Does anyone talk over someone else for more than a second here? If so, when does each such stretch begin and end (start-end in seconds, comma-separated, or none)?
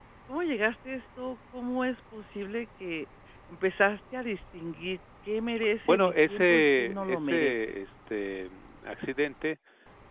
5.8-7.7